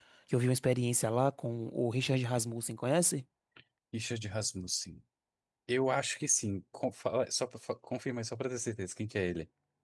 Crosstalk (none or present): none